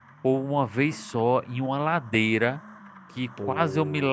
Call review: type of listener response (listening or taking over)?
listening